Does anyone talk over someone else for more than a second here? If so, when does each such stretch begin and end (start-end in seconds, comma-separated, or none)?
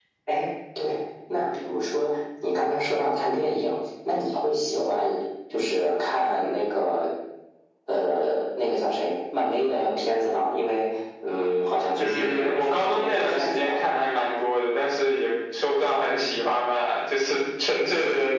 11.9-13.8